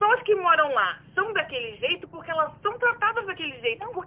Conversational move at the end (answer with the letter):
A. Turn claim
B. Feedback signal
B